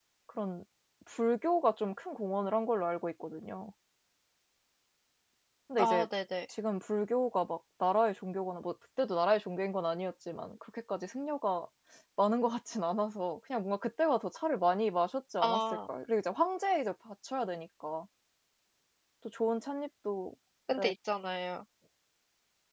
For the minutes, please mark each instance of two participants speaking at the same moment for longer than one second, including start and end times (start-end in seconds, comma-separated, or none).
none